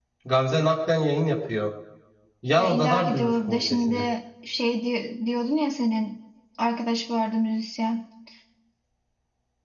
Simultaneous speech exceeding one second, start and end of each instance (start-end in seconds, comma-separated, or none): 2.6-4.0